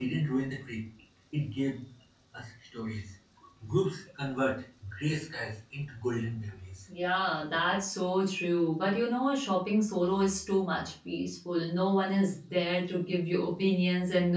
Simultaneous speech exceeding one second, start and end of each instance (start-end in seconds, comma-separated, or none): none